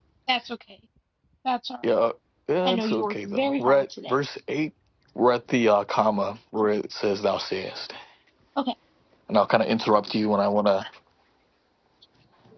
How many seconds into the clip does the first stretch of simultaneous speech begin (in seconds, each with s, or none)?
2.6 s